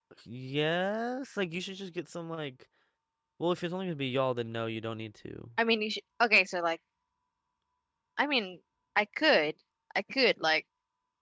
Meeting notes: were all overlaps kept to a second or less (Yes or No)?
Yes